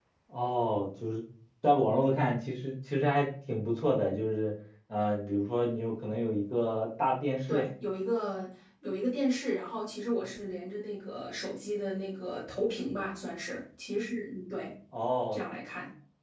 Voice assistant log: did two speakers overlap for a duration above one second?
No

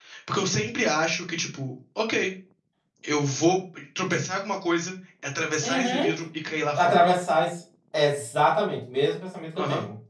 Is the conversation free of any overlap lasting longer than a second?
Yes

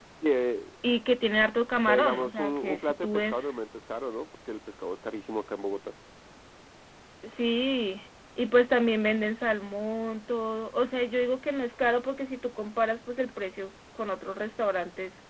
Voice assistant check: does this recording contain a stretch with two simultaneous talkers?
Yes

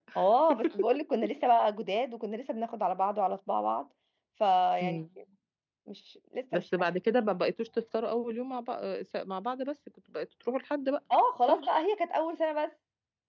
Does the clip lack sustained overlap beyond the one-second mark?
Yes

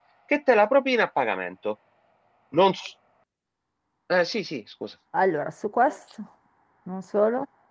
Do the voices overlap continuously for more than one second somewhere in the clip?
No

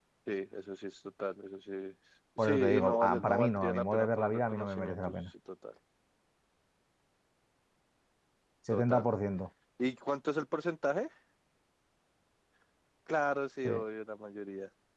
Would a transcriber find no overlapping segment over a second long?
No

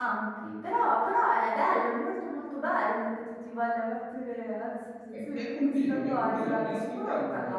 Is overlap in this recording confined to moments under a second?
No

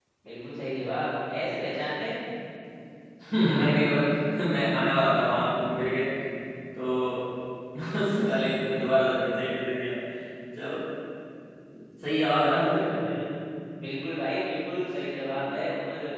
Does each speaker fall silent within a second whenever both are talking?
Yes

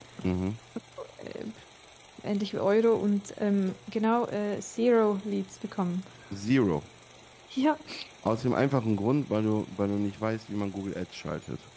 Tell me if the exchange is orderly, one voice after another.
Yes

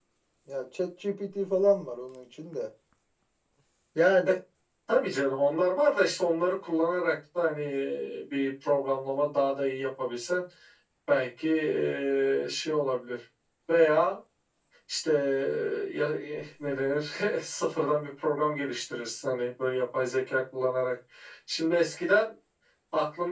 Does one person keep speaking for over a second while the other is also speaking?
No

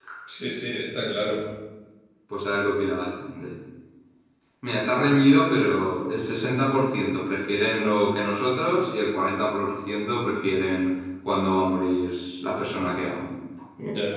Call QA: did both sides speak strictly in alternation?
Yes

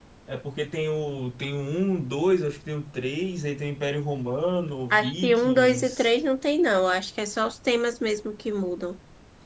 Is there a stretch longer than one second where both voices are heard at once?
Yes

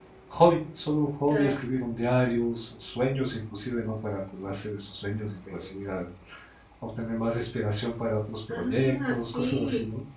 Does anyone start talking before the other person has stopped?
Yes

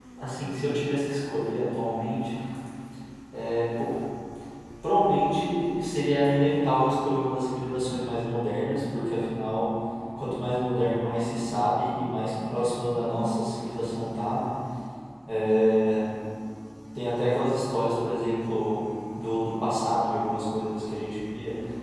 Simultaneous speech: No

